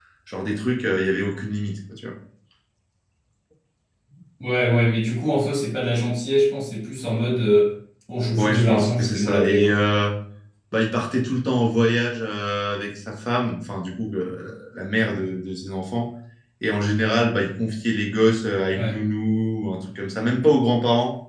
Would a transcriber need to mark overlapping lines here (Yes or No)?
Yes